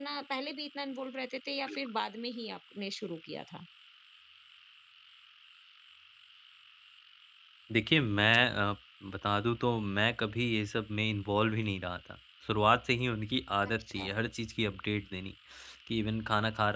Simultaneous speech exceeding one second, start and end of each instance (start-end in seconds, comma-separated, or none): none